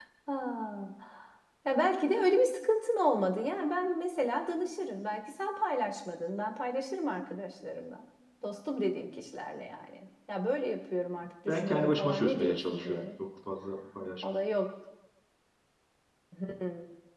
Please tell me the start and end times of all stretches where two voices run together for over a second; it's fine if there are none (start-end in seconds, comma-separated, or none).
11.5-13.1